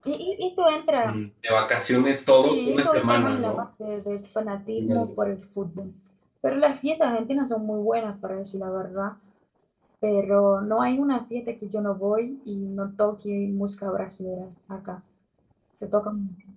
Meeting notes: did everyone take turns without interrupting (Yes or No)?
No